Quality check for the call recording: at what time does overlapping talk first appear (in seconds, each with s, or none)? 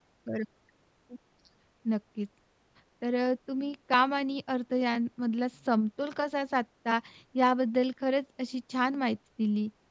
none